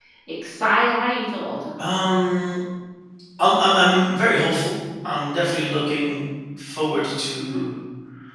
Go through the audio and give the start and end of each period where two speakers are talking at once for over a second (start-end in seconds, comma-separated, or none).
none